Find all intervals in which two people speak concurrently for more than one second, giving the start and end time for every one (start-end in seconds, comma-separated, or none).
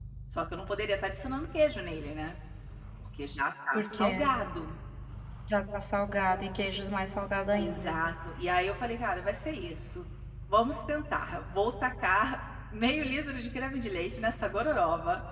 none